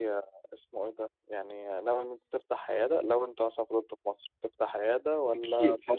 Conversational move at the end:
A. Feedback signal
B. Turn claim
B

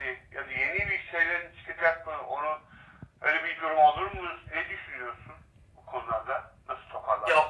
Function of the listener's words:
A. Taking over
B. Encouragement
A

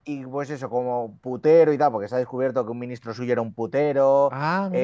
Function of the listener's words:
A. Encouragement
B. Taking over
A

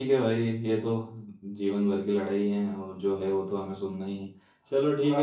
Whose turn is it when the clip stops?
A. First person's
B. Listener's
A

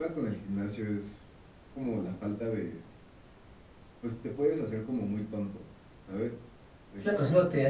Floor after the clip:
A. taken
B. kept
A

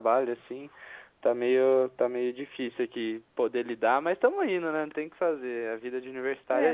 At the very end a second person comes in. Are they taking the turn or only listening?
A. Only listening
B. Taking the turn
B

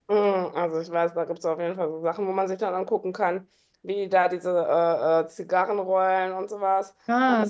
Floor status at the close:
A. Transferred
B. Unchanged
B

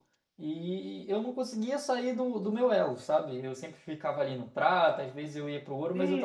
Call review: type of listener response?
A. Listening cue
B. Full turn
B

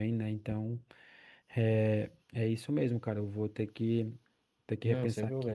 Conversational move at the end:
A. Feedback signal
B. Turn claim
B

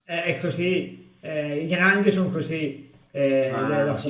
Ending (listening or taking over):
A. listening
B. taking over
A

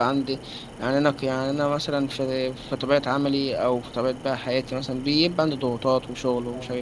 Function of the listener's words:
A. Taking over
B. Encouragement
B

